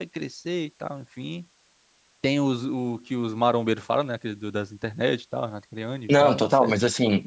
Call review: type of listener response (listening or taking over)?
taking over